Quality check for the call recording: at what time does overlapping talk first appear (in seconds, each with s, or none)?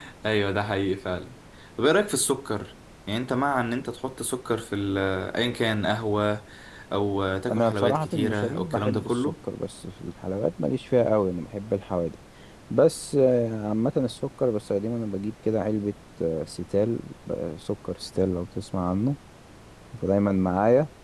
7.5 s